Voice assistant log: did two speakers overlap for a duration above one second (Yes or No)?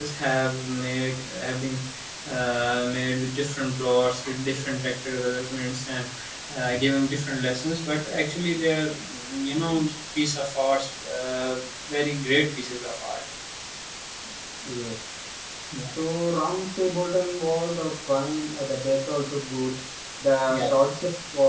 No